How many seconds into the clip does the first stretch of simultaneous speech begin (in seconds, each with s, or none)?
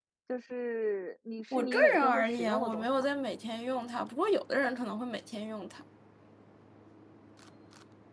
1.5 s